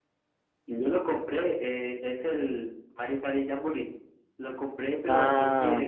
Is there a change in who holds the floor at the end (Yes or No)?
No